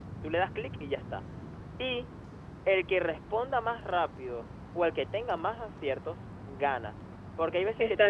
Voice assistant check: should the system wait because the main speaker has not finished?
Yes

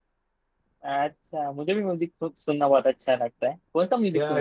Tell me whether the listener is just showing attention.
No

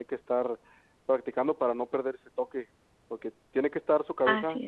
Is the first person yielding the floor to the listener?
No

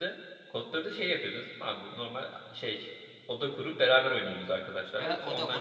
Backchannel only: No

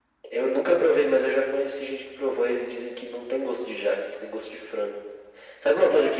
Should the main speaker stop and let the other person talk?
Yes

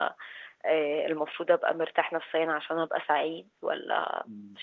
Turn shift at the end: Yes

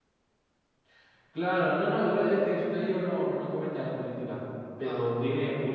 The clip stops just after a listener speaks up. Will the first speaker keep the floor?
Yes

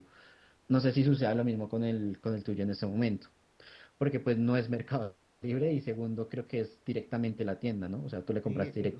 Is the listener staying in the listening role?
No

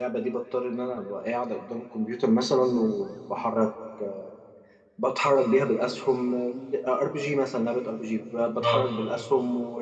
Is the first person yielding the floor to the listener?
No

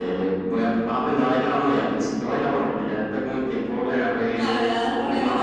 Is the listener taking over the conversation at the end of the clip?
Yes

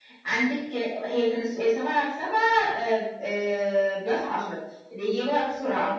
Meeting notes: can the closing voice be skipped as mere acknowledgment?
Yes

